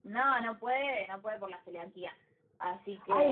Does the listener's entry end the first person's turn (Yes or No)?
Yes